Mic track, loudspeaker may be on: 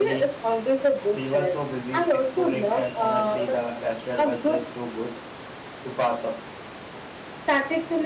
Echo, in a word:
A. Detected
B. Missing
A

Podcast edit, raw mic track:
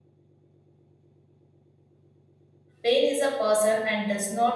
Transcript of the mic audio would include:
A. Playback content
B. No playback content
B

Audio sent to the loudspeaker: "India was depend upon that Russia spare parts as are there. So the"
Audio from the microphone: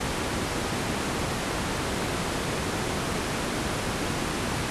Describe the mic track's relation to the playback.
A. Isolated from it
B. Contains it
A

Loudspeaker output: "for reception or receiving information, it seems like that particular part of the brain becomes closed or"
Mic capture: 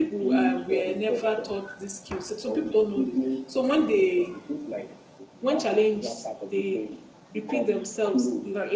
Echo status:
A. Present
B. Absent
A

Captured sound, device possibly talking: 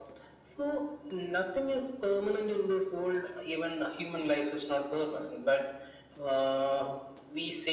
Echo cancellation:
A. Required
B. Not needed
A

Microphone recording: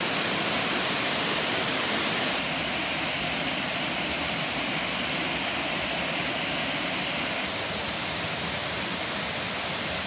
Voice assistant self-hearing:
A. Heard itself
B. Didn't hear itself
B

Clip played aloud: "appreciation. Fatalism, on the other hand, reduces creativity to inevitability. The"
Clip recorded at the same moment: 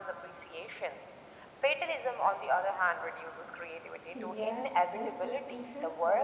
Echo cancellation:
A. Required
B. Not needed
A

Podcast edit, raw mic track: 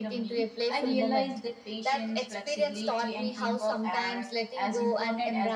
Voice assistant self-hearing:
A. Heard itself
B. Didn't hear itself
A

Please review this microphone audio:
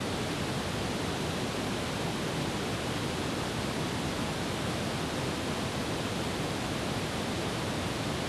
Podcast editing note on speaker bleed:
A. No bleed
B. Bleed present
A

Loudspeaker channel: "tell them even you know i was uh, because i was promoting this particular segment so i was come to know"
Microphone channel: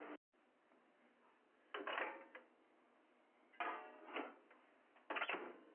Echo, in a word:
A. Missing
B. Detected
A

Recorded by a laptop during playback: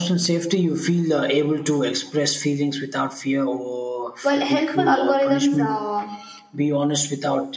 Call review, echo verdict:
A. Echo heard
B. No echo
A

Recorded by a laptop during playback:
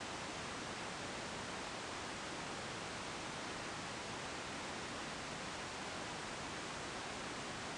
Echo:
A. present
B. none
B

